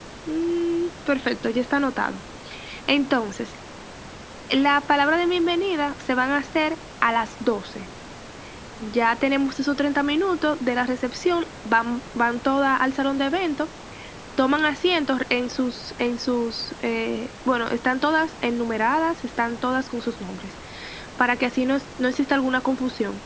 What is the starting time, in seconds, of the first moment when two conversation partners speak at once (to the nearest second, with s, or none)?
none